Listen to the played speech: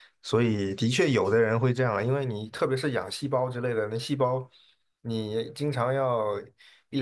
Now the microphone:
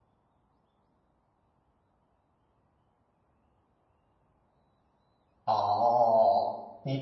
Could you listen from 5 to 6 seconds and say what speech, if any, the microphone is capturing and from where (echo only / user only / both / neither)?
user only